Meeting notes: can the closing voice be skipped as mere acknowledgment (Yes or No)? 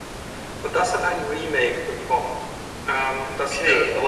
No